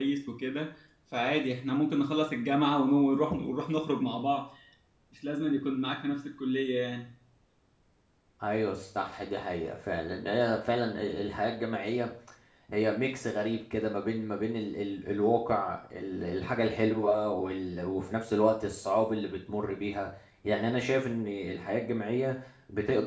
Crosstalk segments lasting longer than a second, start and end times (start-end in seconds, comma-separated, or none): none